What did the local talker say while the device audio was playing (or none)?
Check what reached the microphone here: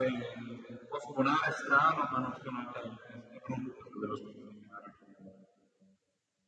none